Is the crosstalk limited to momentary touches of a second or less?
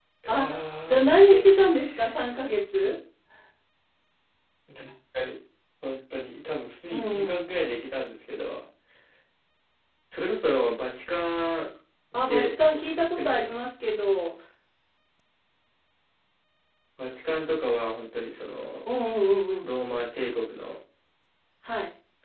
No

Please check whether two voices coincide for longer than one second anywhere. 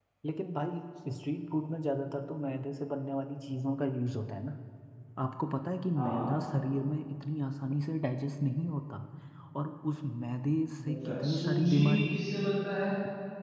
Yes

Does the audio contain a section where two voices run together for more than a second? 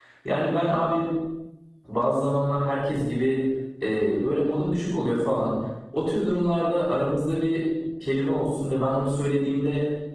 No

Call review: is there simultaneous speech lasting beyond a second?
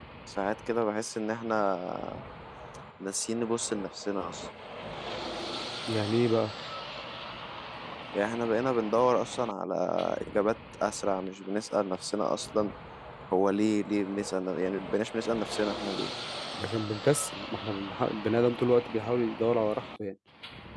No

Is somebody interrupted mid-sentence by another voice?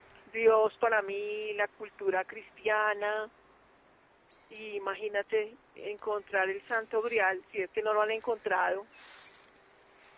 No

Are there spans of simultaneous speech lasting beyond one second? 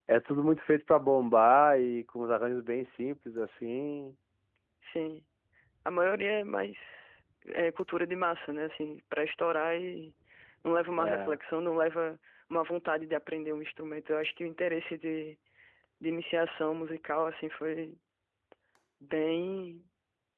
No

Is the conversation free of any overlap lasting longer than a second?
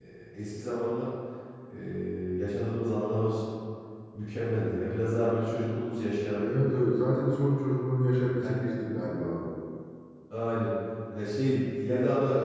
Yes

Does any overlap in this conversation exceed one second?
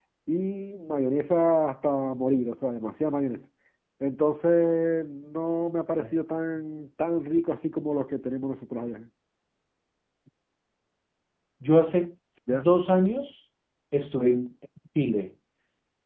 No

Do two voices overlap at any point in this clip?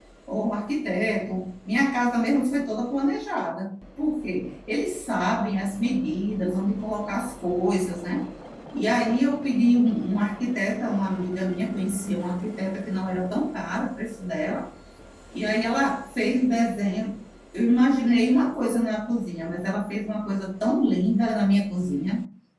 No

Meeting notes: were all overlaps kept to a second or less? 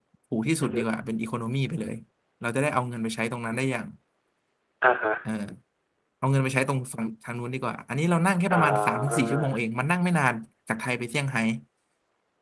No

